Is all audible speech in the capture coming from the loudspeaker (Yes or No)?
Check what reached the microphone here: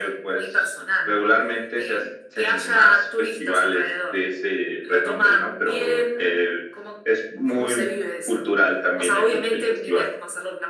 Yes